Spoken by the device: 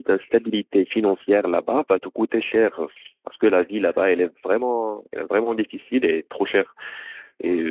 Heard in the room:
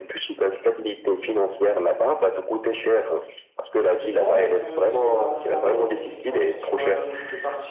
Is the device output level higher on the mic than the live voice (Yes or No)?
Yes